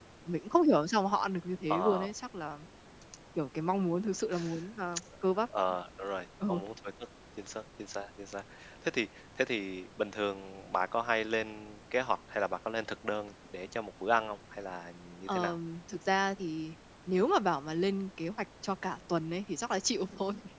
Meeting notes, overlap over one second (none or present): none